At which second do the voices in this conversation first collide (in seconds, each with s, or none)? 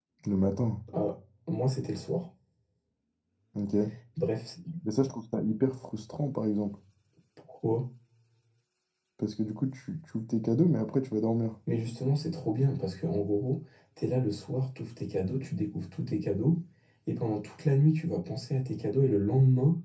none